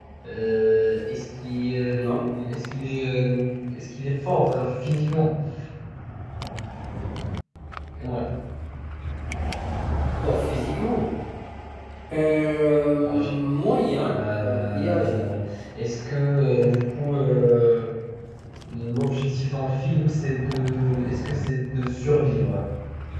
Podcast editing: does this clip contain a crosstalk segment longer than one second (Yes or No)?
Yes